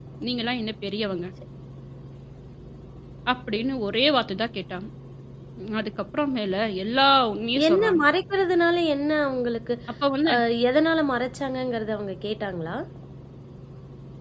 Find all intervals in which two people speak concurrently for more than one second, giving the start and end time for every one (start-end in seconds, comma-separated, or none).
none